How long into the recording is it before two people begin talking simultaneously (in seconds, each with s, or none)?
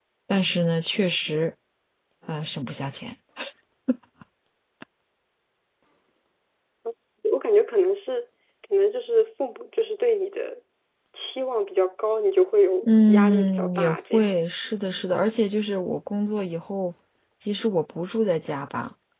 12.8 s